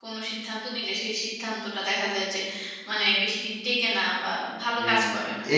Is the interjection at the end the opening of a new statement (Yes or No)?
Yes